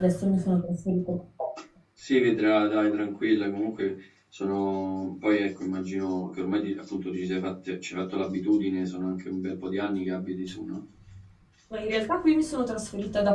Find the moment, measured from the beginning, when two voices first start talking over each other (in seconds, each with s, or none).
none